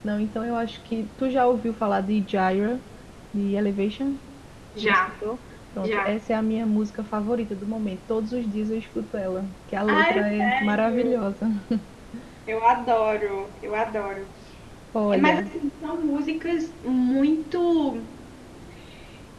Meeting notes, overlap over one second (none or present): present